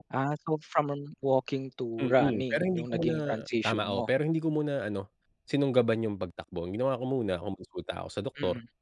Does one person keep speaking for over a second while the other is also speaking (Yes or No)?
Yes